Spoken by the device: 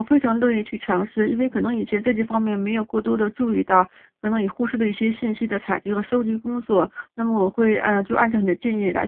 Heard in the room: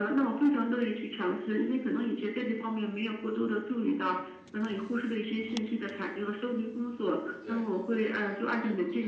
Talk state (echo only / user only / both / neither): both